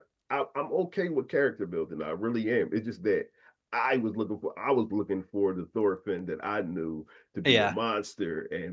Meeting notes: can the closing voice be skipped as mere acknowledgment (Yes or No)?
Yes